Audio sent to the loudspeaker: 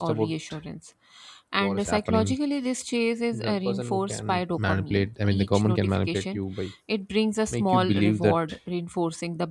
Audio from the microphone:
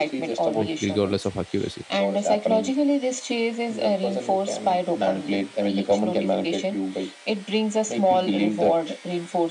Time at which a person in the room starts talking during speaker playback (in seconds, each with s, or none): 0.6 s